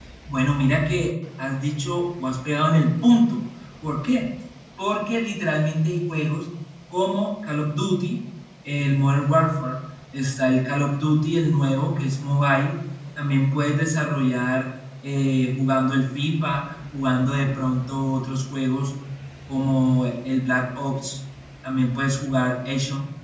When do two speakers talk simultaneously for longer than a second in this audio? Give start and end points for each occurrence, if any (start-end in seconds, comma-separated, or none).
none